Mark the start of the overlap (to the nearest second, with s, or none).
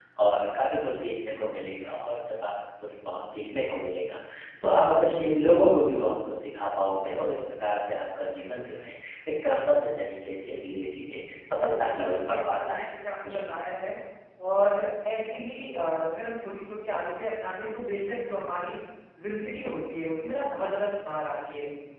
12 s